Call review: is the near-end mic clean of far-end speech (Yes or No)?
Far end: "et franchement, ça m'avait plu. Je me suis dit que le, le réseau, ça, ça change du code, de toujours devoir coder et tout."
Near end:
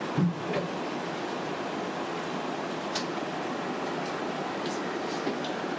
Yes